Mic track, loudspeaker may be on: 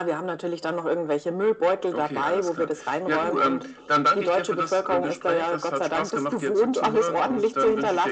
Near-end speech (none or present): none